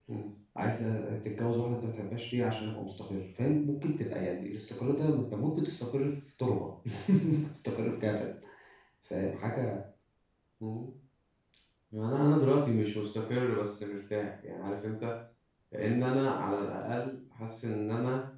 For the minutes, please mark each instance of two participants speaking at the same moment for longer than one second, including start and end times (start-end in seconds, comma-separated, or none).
none